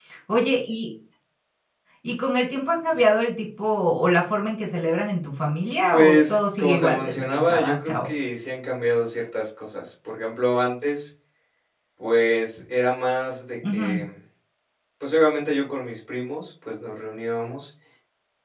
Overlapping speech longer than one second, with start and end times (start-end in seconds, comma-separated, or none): 5.9-8.1